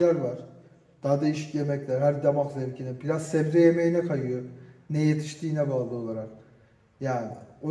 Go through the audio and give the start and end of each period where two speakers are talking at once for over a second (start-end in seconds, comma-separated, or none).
none